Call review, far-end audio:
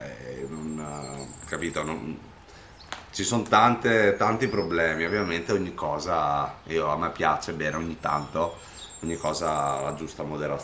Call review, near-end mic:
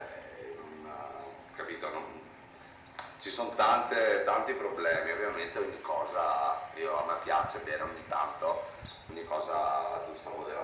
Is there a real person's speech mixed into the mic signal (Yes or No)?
No